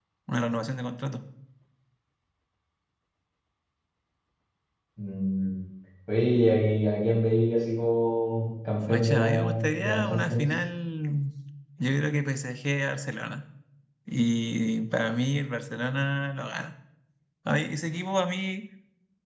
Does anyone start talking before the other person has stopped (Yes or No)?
Yes